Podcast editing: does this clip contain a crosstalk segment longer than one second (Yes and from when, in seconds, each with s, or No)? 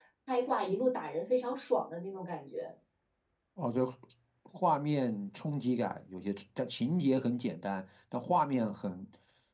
No